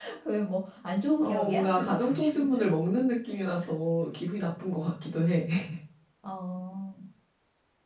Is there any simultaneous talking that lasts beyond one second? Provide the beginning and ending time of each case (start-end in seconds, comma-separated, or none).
1.2-2.7